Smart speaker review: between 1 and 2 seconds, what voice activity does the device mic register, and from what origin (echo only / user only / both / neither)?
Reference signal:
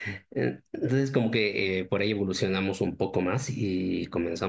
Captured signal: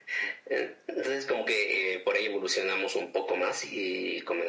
echo only